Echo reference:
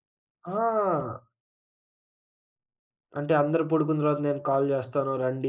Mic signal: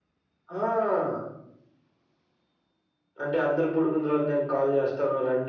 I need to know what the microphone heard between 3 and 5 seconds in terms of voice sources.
echo only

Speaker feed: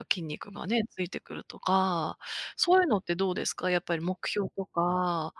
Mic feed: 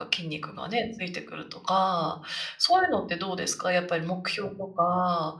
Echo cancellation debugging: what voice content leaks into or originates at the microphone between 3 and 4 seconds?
echo only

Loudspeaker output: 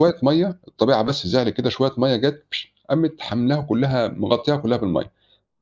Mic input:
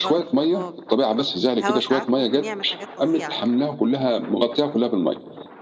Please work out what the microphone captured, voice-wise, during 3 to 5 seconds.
both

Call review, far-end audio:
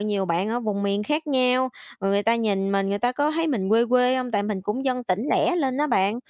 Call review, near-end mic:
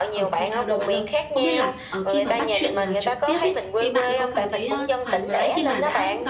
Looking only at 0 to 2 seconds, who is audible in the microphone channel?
both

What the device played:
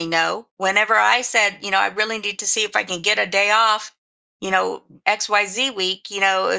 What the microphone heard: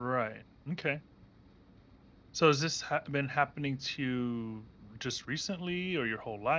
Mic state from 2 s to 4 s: user only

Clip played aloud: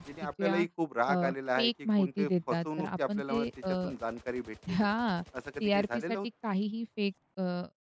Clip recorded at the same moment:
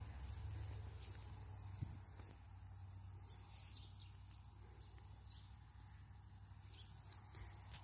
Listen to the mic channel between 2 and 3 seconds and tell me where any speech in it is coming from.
neither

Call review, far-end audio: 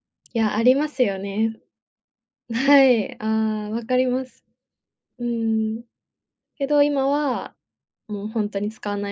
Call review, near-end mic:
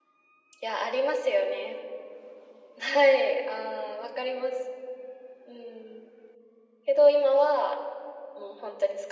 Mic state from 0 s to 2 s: echo only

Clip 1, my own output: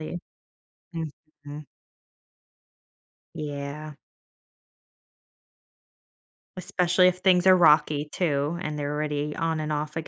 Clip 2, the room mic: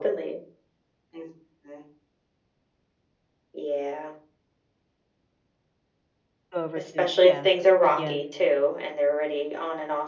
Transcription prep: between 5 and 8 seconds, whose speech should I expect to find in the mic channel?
both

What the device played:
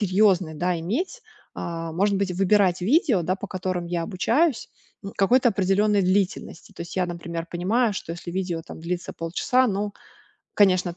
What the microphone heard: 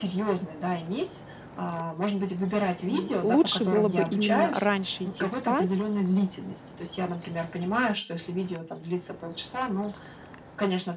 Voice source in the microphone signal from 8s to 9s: echo only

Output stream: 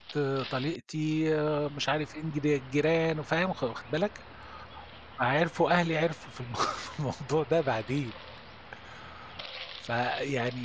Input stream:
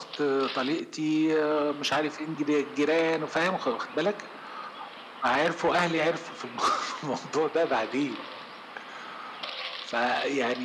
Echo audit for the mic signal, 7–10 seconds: echo only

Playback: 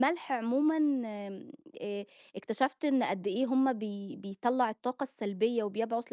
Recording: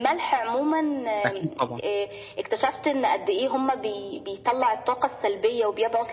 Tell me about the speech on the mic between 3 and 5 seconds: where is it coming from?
echo only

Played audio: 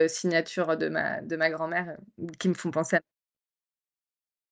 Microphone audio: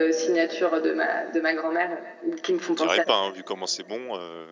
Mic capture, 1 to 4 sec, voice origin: both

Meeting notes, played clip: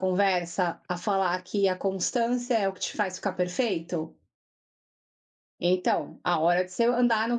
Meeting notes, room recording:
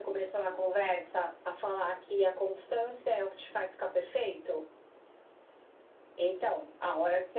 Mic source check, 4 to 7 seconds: echo only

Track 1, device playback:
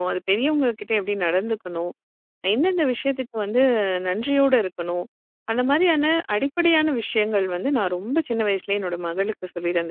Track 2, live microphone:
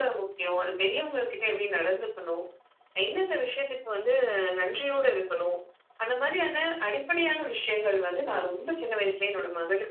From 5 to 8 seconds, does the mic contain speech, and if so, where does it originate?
echo only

